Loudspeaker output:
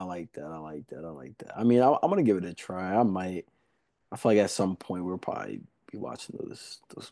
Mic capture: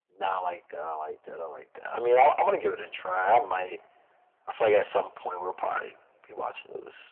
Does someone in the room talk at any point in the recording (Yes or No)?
No